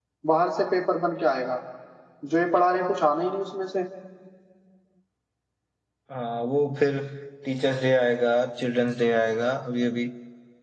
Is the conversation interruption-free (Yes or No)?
Yes